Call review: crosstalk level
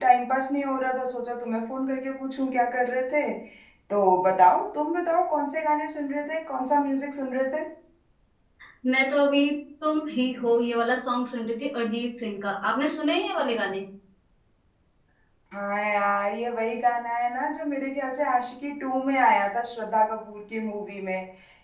none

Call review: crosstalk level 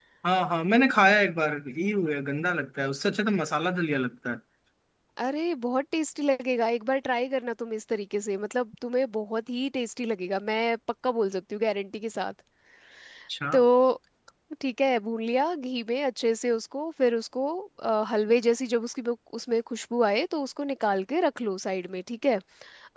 none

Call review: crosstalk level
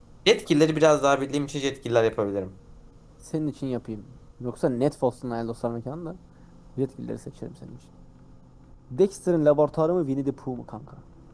none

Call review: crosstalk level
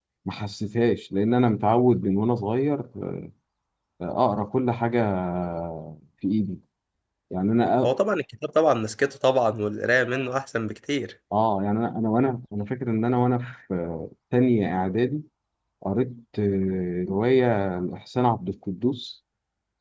none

